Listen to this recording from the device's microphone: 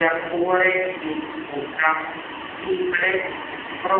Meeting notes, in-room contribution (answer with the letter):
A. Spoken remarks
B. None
B